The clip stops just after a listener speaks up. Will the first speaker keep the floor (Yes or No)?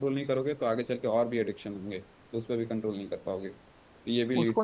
No